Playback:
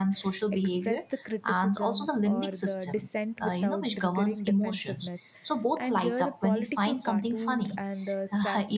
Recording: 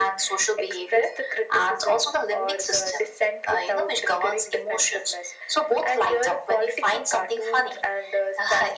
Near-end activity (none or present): none